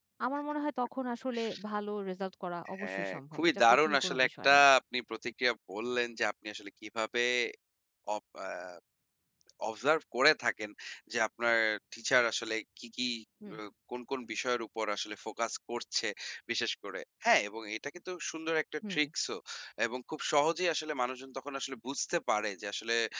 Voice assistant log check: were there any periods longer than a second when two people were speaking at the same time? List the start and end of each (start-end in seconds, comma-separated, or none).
2.8-4.6